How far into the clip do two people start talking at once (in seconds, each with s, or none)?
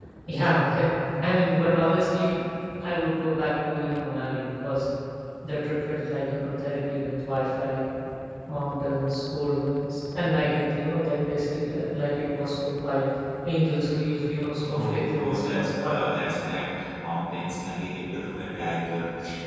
14.6 s